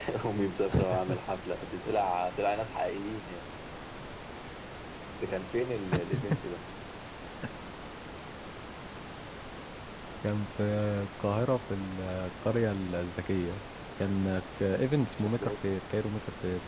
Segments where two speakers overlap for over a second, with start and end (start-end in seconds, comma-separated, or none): none